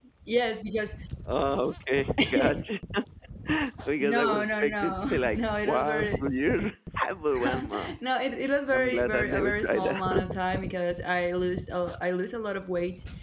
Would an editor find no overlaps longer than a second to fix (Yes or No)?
No